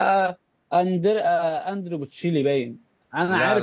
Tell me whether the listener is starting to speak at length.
No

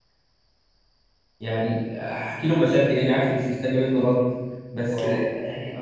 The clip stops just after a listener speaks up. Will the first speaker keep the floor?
Yes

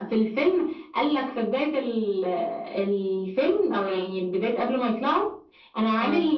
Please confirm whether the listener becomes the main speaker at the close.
No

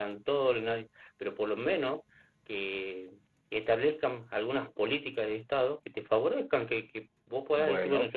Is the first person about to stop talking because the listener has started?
No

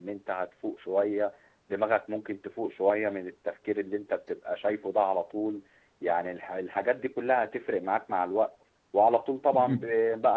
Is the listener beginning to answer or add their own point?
No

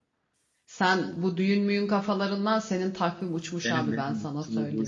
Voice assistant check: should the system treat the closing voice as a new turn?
Yes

